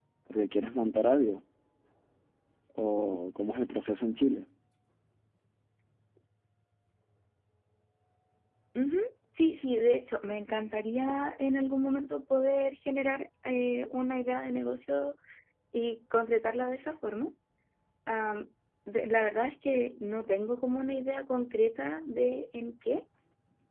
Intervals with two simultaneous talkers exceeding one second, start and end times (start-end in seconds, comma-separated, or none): none